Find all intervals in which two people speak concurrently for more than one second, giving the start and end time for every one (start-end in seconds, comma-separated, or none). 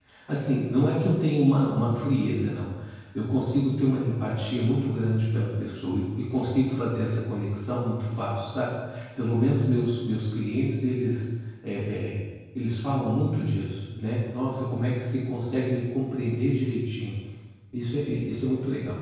none